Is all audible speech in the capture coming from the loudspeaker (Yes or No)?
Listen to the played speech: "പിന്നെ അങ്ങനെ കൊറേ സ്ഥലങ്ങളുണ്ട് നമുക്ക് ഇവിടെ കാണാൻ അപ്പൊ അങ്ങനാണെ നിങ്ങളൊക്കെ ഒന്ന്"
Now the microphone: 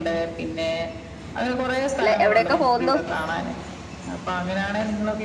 No